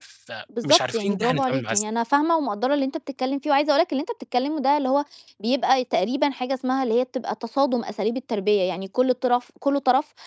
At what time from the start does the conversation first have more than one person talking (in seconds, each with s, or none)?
0.6 s